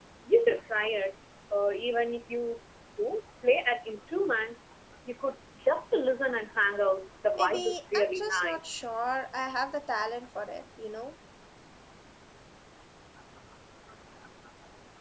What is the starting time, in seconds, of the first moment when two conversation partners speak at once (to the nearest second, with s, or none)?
7 s